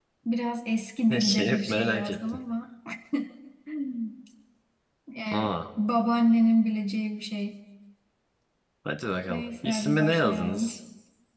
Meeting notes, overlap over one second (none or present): present